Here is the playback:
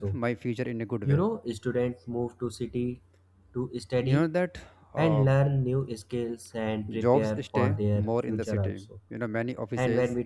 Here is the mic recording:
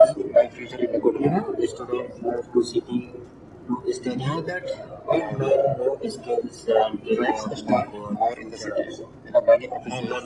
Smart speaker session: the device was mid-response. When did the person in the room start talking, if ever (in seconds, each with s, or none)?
none